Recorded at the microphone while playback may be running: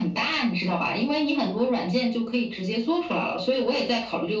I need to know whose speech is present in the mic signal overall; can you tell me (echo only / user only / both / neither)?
echo only